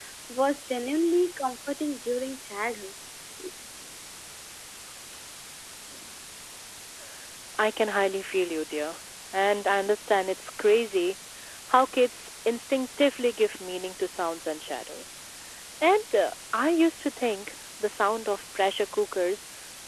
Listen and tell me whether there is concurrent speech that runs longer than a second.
No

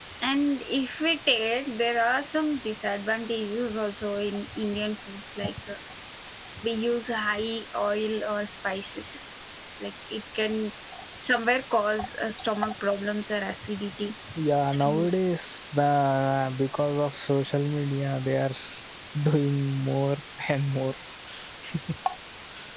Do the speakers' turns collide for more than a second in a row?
No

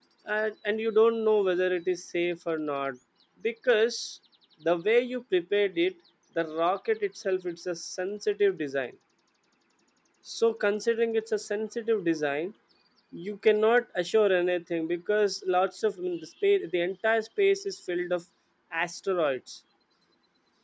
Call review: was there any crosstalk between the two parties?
No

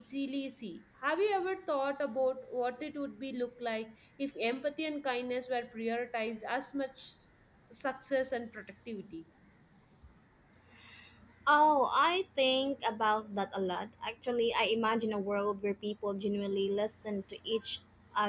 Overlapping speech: No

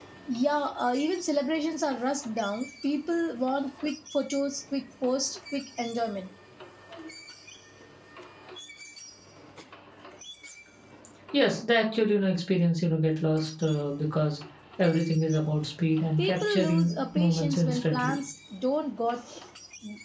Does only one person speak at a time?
No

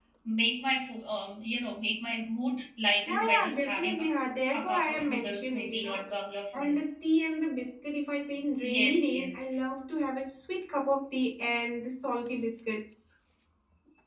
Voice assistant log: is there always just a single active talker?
No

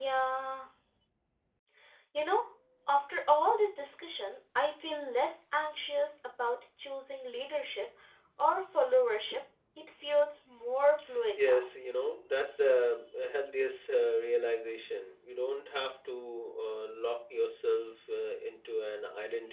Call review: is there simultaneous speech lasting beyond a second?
No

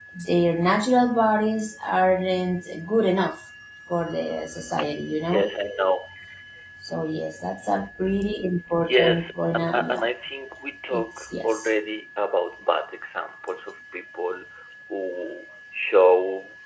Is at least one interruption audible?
Yes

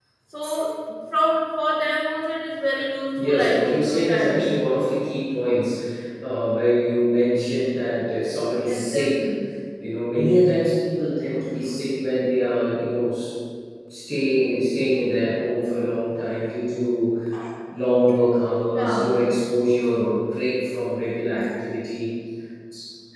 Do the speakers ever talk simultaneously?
Yes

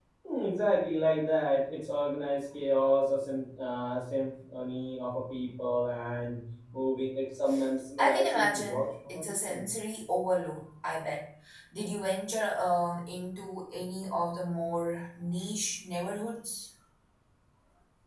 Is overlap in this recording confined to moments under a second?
No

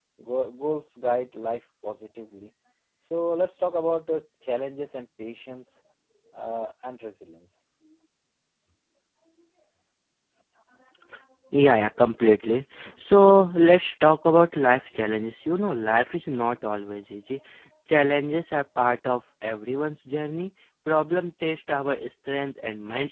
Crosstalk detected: No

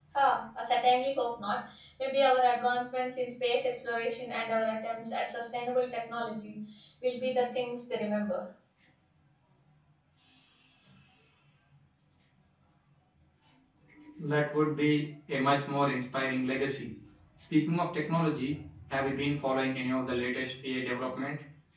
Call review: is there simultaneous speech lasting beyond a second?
No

